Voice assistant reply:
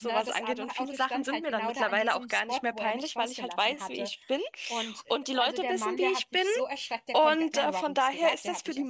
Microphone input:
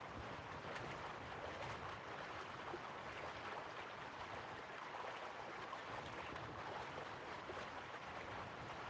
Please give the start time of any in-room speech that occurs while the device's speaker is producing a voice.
none

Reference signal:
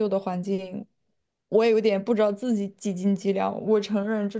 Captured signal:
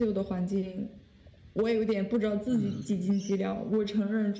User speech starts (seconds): 2.5 s

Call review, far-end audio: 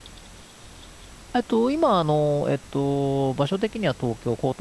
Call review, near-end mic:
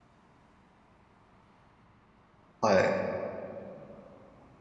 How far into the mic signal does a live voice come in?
2.6 s

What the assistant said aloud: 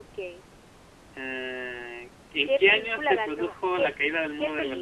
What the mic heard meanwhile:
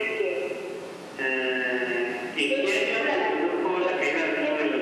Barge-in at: none

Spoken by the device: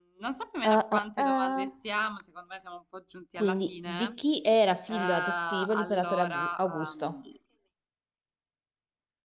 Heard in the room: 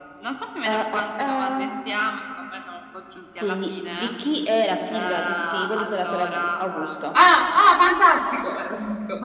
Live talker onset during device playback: 7.1 s

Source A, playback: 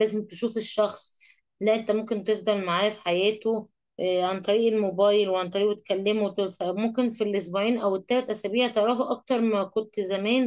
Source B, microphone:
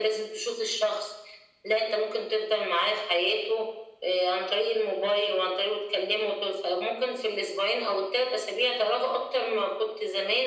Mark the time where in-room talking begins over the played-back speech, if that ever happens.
none

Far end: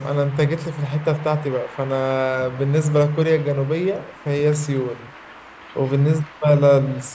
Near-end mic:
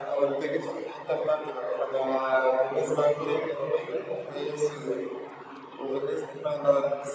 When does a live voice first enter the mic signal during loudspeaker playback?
none

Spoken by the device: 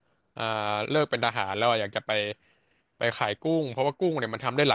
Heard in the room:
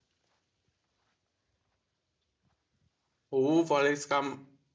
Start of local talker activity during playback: 3.3 s

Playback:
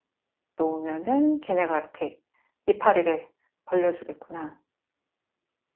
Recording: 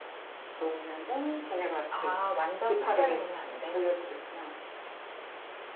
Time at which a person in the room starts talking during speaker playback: 1.9 s

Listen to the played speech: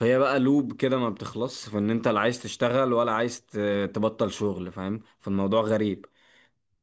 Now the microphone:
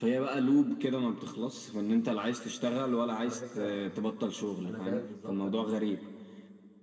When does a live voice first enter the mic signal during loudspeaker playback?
3.2 s

